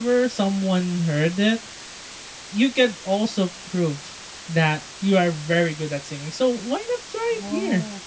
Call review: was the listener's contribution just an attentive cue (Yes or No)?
Yes